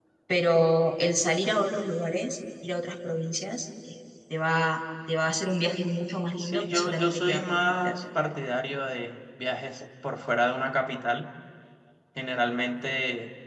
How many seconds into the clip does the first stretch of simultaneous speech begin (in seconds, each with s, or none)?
6.4 s